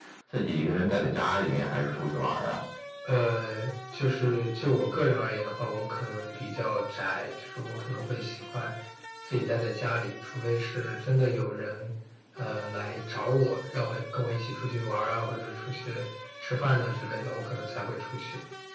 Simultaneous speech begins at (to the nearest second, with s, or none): none